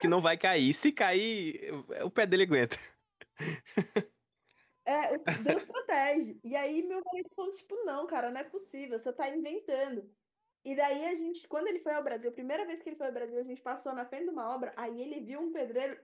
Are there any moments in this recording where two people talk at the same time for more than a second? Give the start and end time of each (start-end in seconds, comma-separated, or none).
none